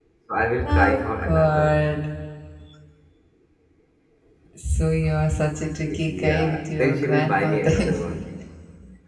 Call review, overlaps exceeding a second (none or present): present